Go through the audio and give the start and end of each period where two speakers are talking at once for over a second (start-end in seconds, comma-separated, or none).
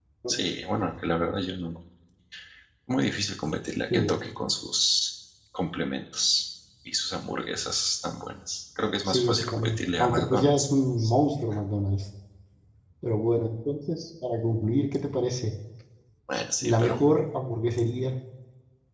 8.8-11.1